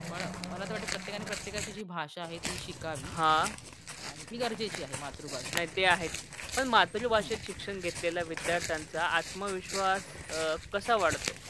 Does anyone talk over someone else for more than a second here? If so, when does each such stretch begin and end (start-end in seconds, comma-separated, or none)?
none